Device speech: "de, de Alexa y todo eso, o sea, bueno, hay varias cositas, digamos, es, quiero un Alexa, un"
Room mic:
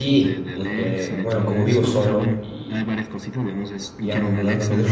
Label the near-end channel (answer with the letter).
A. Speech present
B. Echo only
A